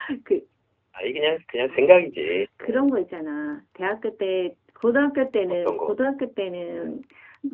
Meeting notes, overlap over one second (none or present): none